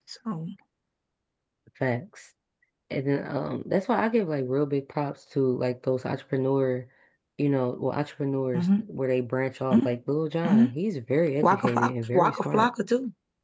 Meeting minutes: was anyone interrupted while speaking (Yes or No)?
Yes